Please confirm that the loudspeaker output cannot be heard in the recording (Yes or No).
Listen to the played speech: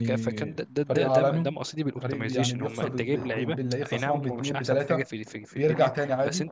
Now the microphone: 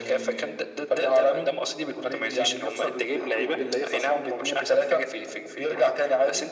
No